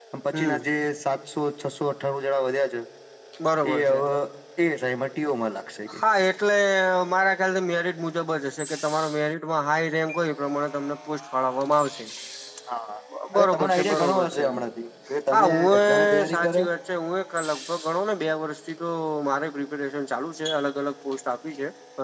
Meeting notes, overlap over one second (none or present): present